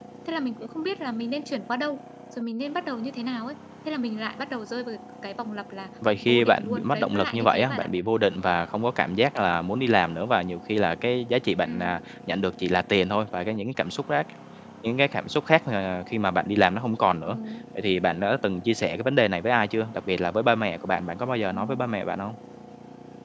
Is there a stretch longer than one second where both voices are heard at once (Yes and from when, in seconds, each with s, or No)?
Yes, from 6.3 s